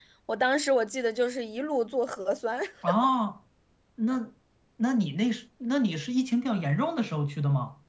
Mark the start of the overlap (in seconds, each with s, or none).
none